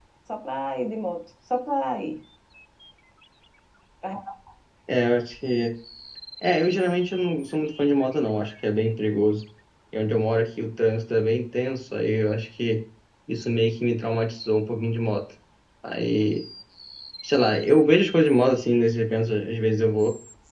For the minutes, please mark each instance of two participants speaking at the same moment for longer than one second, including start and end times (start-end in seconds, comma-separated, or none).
none